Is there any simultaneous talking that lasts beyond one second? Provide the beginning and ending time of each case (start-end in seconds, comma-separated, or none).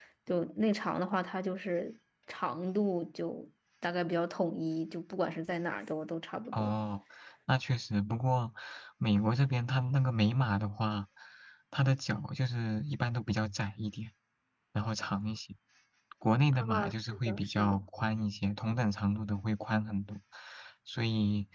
16.5-17.8